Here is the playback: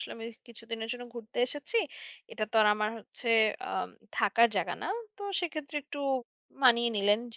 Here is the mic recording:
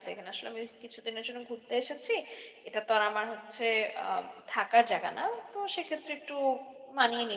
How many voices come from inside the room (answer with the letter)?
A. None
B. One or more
A